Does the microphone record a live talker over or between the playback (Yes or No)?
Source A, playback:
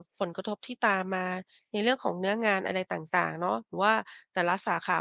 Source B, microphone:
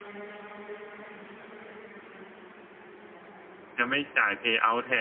Yes